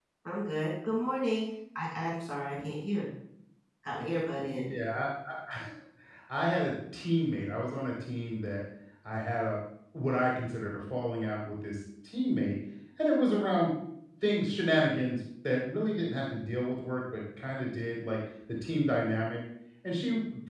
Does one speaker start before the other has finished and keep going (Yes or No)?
No